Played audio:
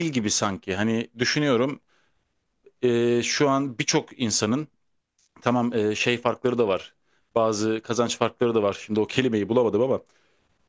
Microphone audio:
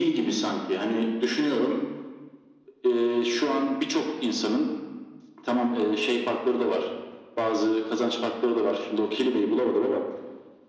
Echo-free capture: No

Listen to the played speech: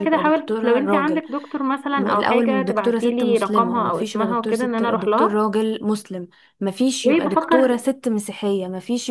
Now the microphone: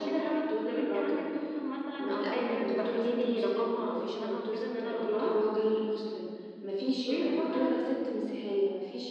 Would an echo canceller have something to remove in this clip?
Yes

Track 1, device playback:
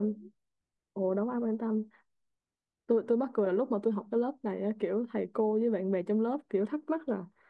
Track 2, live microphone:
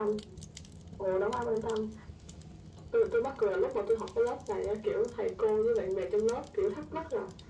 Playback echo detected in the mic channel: Yes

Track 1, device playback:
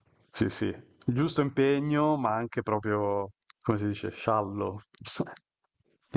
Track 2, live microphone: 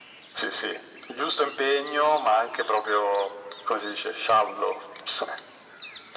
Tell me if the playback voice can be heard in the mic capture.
Yes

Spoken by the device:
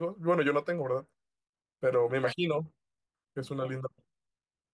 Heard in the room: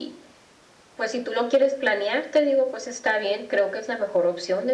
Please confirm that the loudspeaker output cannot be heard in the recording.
Yes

